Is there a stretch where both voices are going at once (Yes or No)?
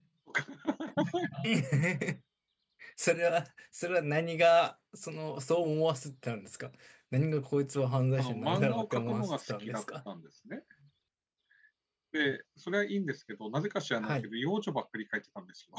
Yes